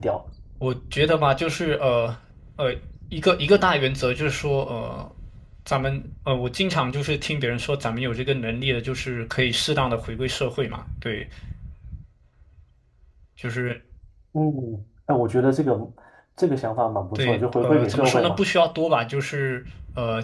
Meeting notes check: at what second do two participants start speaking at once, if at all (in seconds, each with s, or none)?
17.1 s